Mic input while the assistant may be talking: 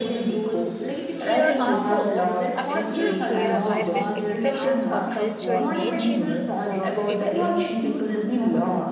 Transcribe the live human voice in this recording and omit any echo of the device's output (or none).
Here also, uh, festivals were a vibrant expressions for culture in ancient uh, people.